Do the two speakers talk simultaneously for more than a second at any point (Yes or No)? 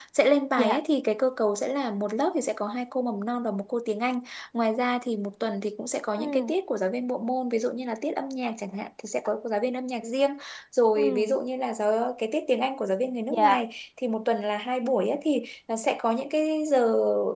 No